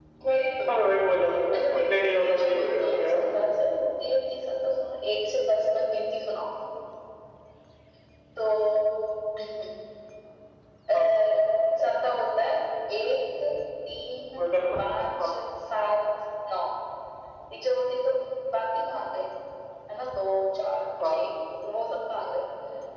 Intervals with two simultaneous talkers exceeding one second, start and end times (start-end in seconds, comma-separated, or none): 1.8-3.3